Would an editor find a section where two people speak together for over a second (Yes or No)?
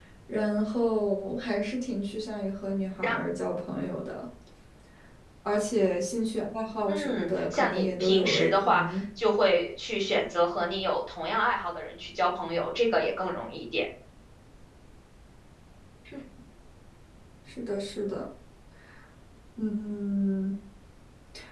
Yes